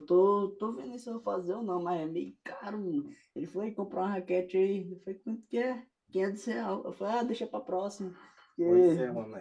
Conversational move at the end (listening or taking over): taking over